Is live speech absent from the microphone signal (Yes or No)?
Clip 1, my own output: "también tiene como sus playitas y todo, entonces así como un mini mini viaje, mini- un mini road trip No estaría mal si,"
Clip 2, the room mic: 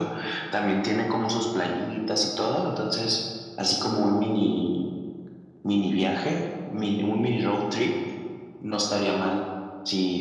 Yes